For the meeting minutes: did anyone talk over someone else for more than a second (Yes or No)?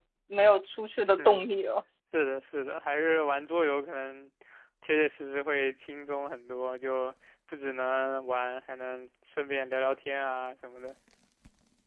No